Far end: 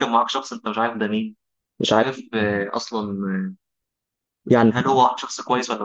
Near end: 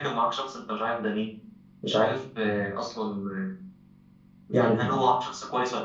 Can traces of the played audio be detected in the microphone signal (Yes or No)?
Yes